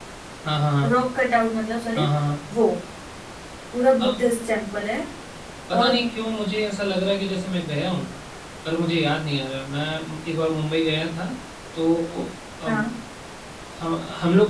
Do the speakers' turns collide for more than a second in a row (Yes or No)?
No